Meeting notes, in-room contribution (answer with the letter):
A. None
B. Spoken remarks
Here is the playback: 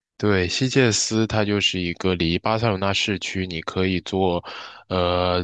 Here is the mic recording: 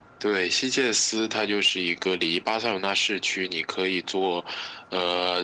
A